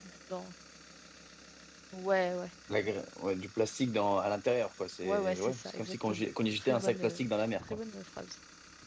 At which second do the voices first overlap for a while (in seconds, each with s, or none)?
5.0 s